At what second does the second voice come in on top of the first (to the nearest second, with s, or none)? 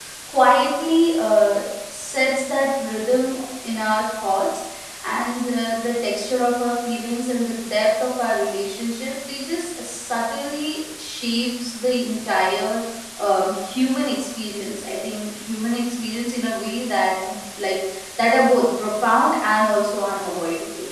none